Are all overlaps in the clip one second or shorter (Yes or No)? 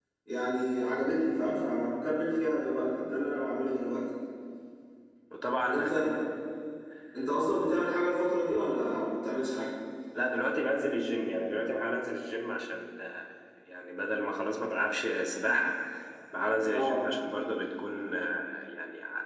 Yes